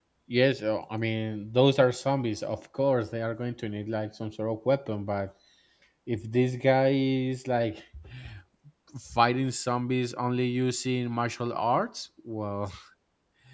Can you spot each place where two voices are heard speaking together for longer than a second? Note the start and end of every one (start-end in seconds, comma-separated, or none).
none